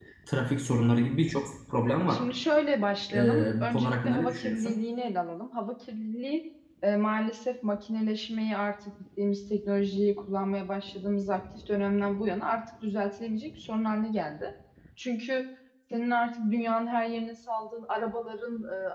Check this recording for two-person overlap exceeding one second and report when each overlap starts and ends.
3.2-4.8

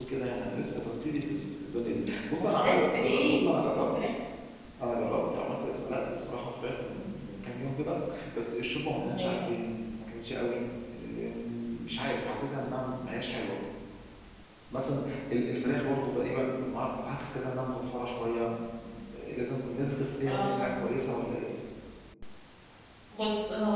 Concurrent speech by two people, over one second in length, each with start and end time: 2.4-3.9

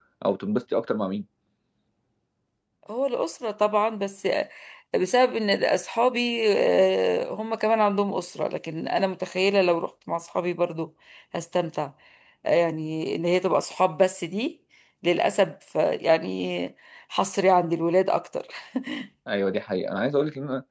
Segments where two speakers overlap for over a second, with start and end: none

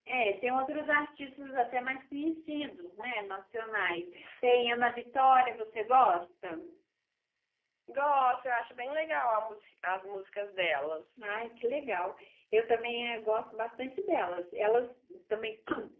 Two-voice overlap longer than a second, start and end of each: none

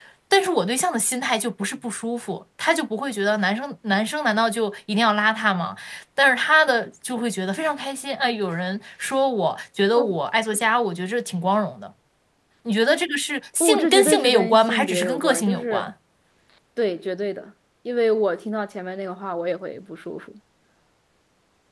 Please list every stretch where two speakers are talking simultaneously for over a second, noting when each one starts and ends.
13.6-15.9

